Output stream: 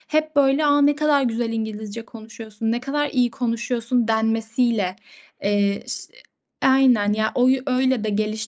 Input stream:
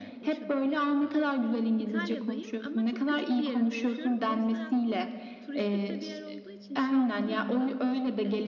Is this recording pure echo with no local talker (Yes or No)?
No